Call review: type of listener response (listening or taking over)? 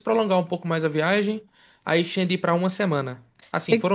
listening